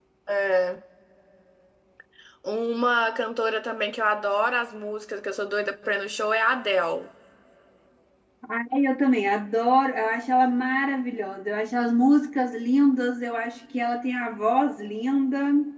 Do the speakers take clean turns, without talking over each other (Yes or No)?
Yes